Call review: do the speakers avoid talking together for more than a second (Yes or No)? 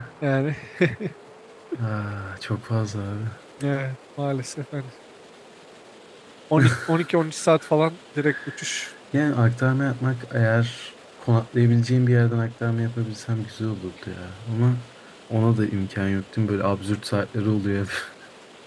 Yes